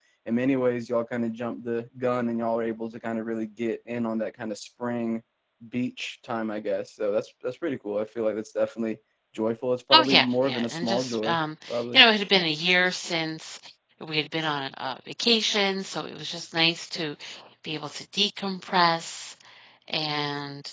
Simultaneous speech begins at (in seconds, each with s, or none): 9.9 s